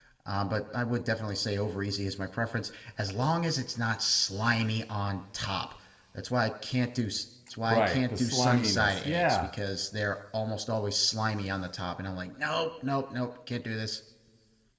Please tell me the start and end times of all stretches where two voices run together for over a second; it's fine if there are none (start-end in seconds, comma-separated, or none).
7.7-9.5